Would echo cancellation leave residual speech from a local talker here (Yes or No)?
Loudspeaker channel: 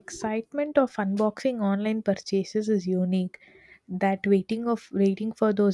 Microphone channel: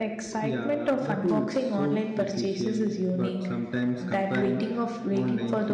Yes